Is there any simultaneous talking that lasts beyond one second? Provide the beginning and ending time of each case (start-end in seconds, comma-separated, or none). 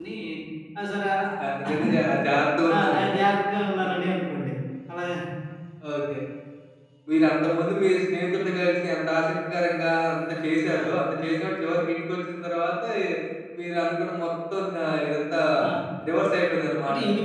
none